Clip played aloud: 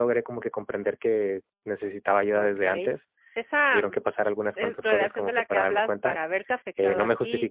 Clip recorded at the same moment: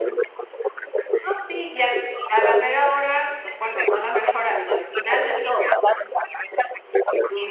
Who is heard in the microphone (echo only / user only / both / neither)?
both